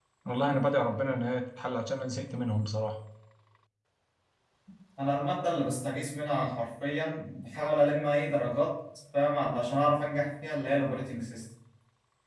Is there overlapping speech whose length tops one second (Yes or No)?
No